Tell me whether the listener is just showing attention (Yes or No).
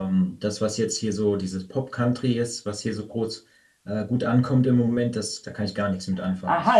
No